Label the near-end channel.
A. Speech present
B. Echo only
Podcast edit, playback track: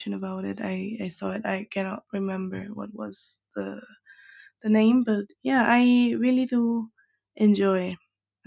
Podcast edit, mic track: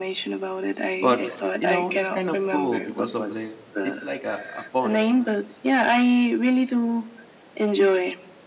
A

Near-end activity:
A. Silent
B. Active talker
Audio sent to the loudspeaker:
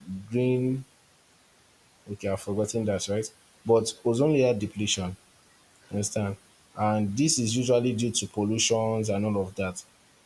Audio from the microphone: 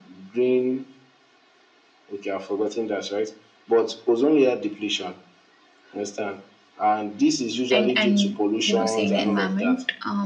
B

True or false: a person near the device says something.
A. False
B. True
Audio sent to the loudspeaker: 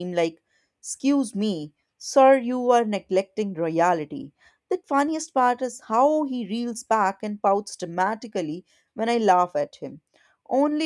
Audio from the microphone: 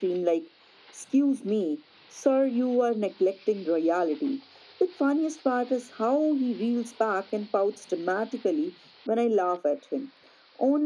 A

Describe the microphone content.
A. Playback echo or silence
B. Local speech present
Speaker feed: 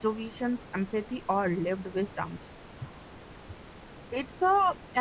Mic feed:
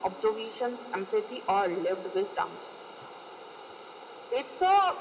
A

